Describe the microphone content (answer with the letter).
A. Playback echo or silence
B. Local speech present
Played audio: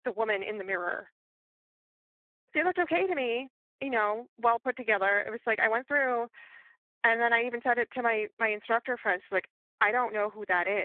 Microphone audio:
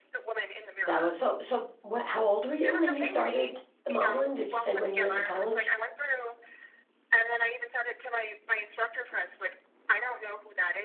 B